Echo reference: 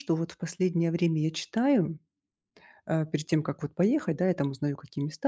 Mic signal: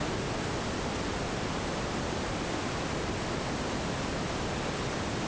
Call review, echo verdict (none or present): none